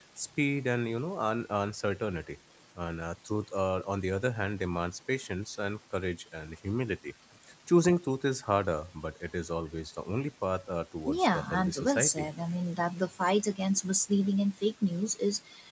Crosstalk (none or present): present